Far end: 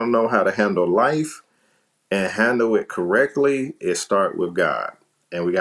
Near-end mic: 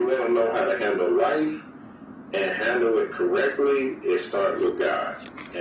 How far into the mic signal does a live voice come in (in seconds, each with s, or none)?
none